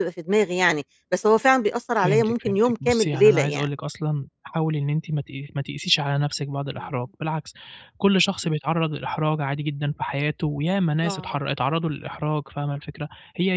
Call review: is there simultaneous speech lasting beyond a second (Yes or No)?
Yes